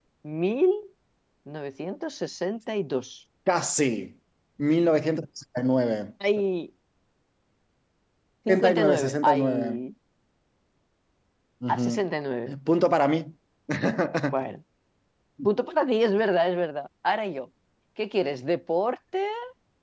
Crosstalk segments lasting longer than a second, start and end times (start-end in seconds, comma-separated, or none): 8.5-9.8